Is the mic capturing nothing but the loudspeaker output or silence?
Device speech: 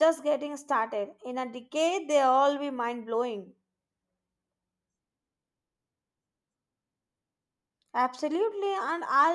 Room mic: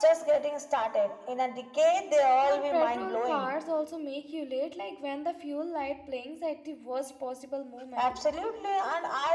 No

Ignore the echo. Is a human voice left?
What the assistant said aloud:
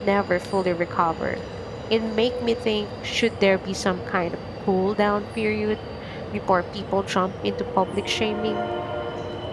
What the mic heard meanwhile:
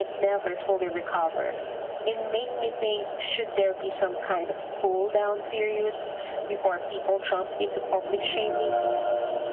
No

